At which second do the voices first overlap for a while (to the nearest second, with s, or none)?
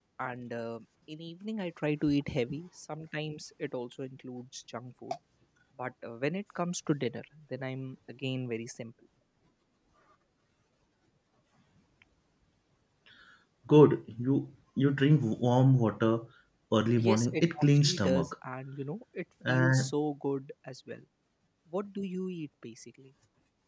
17 s